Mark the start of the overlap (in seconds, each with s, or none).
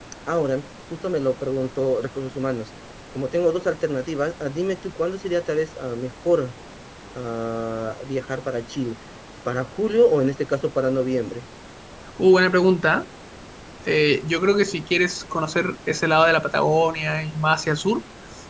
none